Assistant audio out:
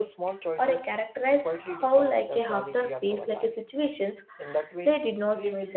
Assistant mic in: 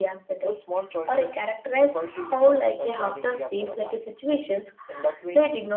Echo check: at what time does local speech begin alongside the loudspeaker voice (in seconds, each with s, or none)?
none